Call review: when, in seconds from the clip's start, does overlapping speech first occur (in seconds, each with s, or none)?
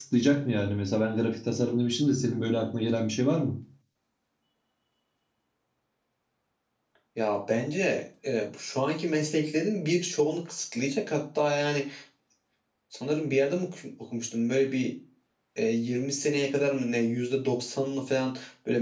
none